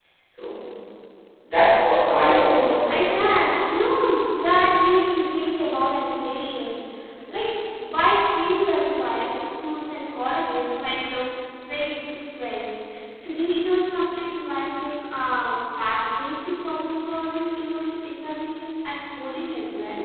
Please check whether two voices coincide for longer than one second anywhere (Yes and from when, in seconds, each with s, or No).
Yes, from 2.1 s